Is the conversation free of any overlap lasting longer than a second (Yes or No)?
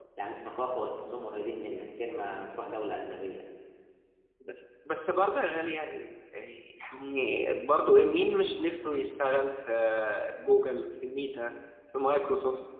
Yes